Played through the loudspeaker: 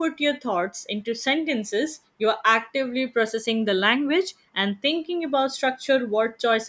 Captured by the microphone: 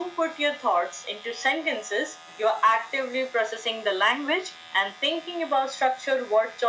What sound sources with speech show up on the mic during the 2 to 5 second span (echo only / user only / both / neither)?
echo only